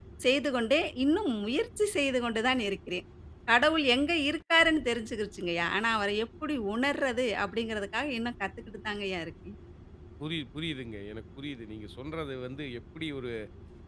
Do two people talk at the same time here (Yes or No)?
No